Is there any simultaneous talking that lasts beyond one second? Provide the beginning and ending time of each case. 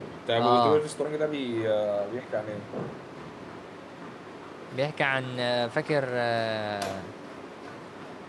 none

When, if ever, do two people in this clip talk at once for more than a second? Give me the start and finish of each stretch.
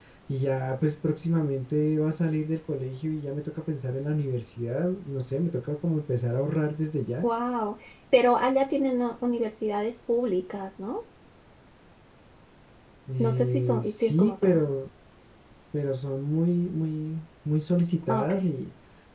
13.2-14.6

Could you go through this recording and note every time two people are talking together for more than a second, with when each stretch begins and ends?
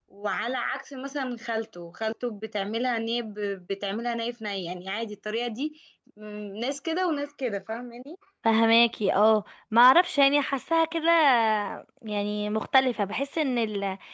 none

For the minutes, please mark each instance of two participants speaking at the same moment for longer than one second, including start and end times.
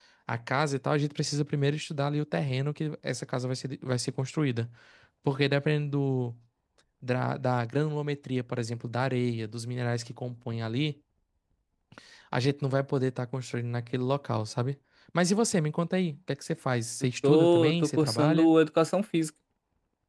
17.2-18.5

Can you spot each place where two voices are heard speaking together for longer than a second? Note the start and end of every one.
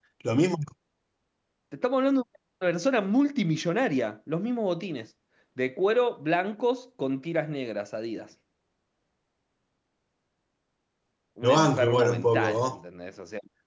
11.4-12.8

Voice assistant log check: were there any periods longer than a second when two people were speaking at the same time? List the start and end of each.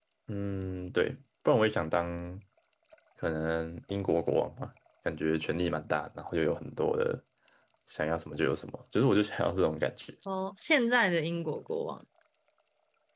none

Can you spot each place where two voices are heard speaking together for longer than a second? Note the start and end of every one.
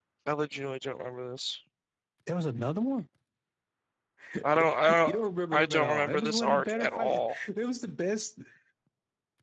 5.5-7.4

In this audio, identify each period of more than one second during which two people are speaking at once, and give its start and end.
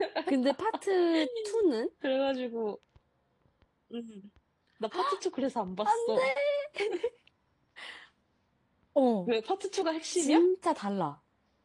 none

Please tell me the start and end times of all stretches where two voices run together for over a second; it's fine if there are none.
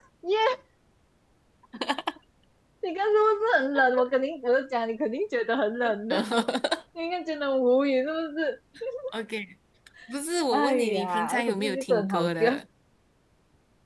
10.5-12.3

